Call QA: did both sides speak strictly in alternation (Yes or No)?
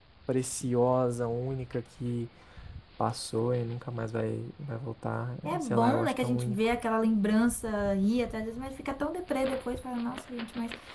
No